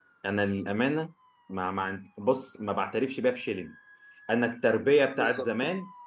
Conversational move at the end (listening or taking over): listening